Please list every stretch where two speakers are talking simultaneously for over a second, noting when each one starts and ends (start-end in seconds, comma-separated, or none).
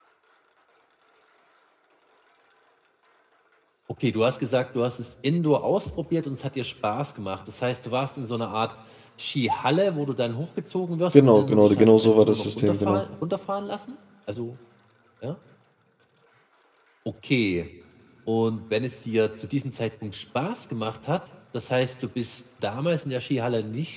11.1-13.0